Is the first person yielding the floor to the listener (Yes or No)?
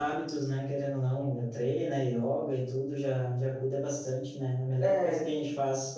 No